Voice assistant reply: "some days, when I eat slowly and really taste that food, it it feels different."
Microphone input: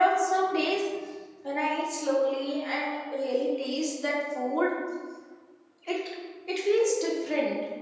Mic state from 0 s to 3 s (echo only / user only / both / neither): echo only